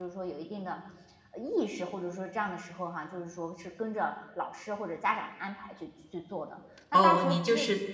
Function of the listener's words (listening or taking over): taking over